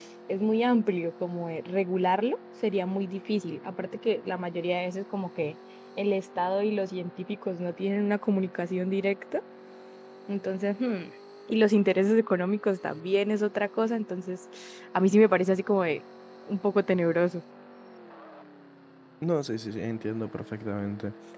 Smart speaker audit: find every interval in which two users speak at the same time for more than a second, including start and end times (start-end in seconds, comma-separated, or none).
none